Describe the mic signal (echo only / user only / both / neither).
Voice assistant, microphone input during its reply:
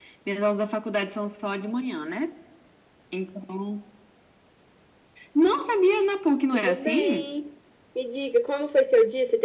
both